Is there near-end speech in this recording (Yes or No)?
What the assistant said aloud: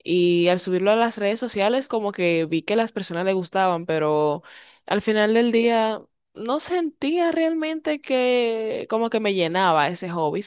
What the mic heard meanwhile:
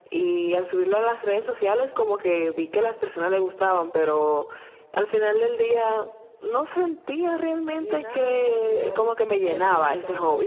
Yes